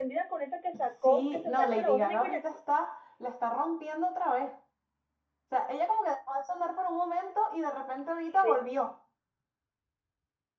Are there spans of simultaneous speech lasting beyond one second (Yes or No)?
Yes